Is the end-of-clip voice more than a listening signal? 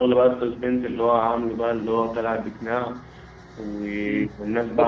Yes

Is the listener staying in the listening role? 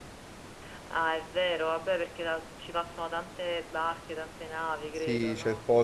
No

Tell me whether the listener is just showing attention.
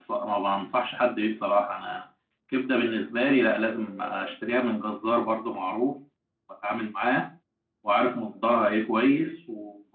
Yes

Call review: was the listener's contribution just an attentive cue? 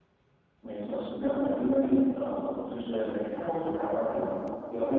Yes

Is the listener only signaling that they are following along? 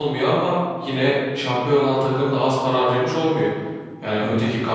Yes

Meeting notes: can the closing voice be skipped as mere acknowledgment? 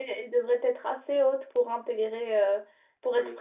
Yes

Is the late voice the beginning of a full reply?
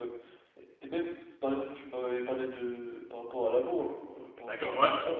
Yes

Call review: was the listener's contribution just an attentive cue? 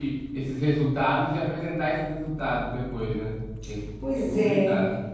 No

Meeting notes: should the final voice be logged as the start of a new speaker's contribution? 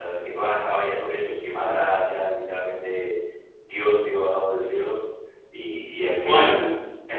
No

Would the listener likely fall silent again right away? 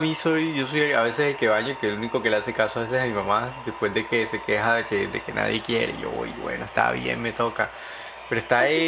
No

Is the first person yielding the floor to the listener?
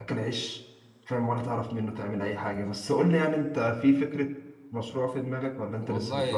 Yes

